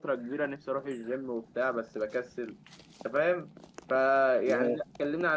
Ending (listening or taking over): listening